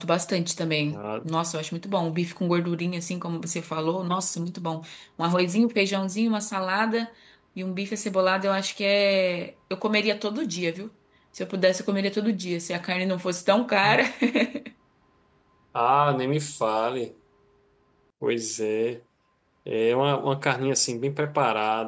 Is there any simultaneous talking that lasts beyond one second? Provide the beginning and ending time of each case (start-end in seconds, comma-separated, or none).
none